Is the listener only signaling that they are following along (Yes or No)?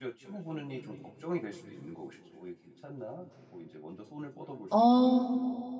No